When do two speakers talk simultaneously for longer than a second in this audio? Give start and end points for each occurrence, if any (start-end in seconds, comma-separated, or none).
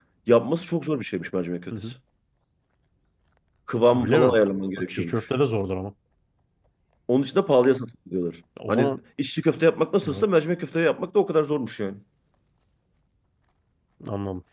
none